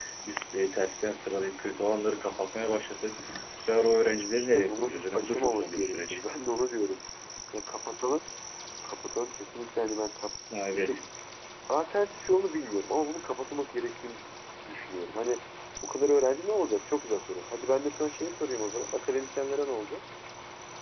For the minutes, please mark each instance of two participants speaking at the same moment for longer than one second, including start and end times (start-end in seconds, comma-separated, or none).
4.0-6.2